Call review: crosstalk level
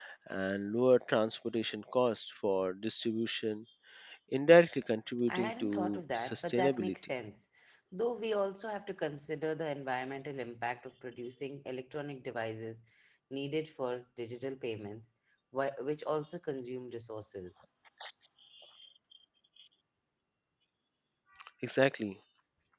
present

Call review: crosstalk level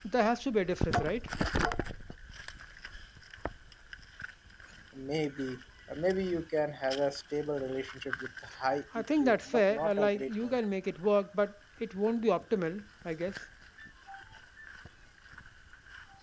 present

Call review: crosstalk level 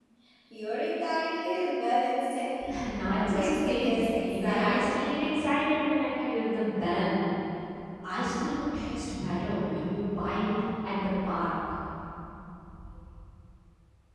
present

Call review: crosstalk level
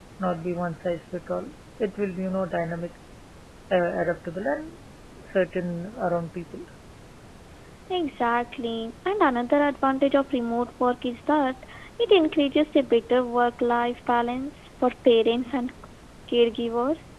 none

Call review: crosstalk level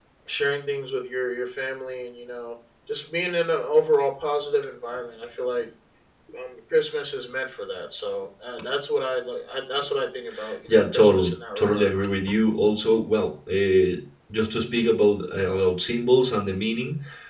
present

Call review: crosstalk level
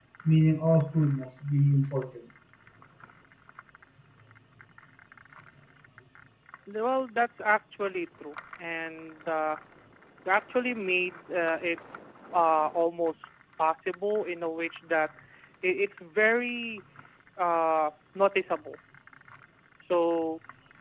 none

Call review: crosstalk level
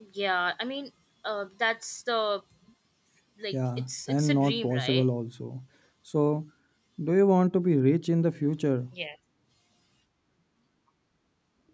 present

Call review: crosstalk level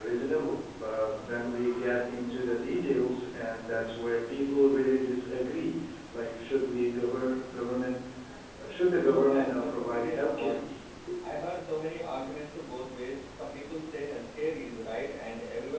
present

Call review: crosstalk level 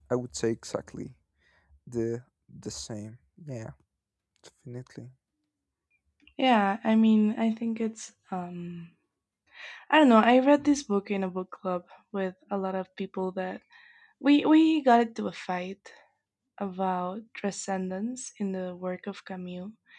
none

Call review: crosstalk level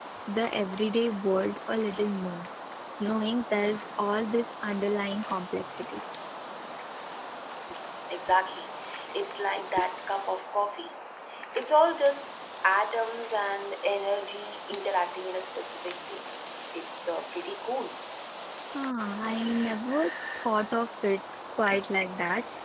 none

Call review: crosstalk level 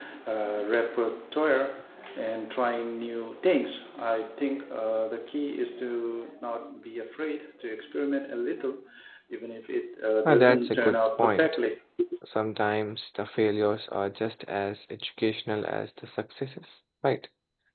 present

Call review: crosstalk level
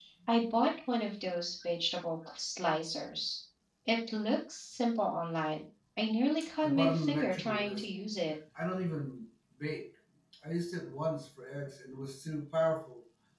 present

